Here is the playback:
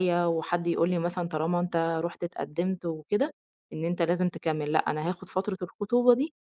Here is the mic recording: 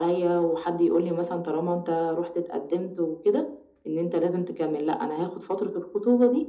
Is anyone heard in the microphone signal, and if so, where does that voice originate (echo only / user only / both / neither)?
echo only